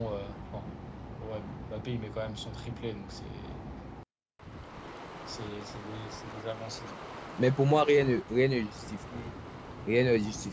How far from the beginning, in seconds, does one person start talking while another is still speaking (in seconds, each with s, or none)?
none